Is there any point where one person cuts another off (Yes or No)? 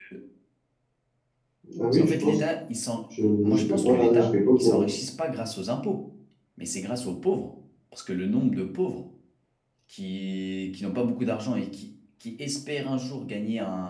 Yes